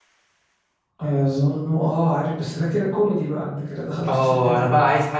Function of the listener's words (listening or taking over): taking over